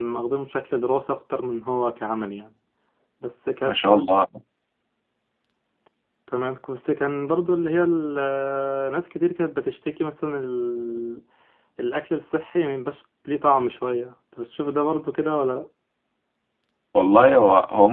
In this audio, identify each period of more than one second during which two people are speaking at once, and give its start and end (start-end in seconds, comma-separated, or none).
none